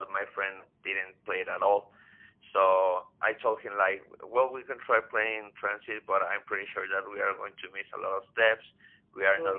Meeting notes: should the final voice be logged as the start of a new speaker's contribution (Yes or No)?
No